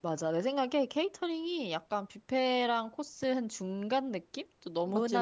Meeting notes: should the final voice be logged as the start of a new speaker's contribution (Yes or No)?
No